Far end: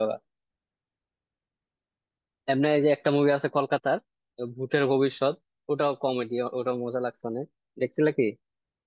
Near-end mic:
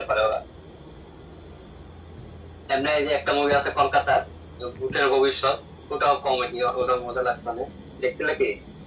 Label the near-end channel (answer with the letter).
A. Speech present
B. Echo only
B